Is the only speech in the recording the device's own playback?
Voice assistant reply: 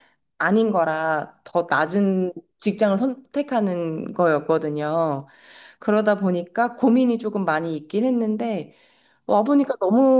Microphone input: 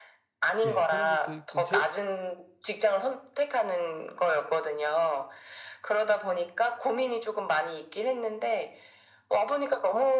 No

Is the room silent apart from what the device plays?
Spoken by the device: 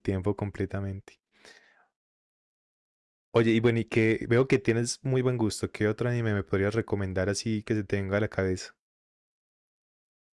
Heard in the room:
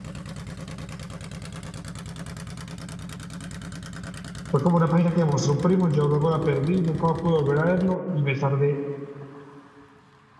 No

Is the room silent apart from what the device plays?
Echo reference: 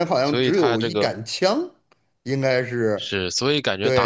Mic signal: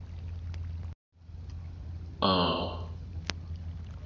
No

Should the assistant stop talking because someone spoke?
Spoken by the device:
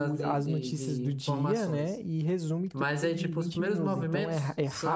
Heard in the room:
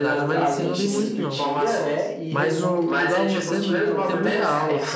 Yes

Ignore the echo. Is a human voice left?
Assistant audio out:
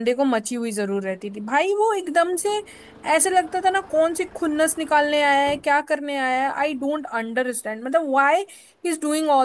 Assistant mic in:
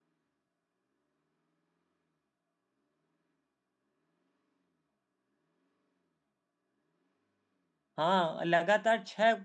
Yes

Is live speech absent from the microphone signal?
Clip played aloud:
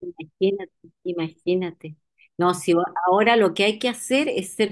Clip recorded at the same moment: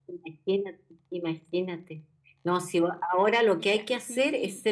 No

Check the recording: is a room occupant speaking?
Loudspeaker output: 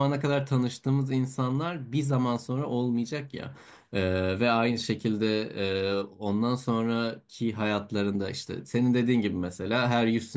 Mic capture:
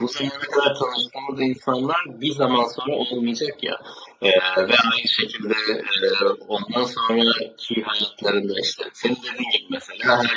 No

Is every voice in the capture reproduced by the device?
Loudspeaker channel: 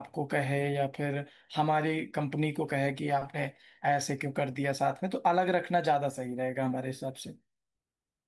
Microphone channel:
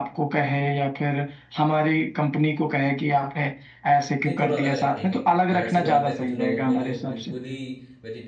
No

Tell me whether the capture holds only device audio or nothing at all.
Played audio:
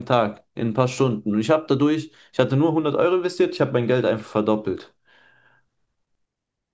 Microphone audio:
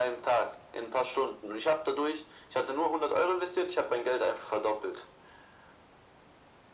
Yes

